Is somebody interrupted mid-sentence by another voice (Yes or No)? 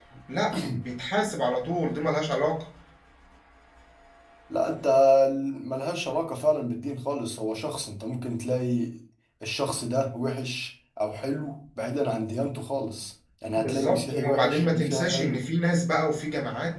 Yes